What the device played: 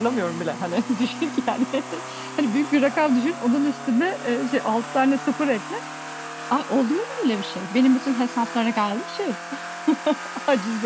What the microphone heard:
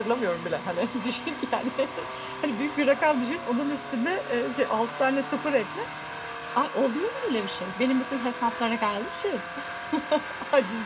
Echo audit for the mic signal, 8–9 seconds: echo only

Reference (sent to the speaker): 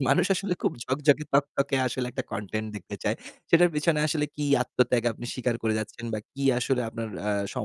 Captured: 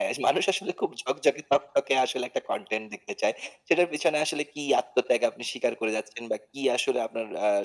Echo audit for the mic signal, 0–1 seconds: echo only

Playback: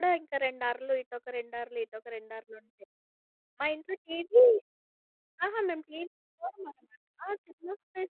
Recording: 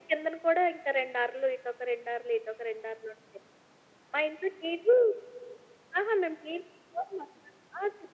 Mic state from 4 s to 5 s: echo only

